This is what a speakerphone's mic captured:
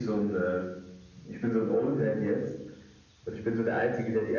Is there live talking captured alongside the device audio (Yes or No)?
No